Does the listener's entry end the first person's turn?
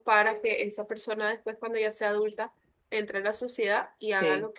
No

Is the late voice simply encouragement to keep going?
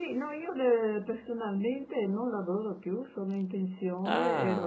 Yes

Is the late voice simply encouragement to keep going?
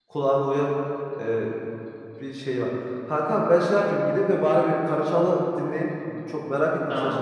Yes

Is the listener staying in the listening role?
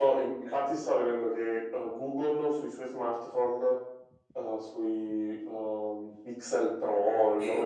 Yes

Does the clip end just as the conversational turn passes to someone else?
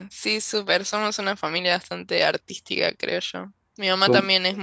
No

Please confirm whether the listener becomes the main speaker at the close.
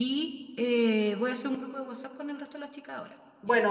Yes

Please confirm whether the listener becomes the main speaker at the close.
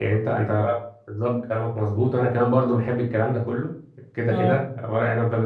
No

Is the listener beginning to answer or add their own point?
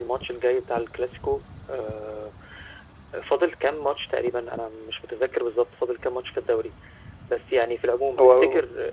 No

